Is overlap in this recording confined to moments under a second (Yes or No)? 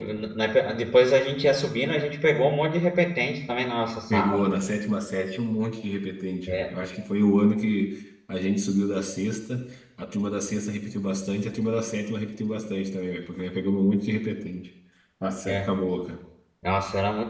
Yes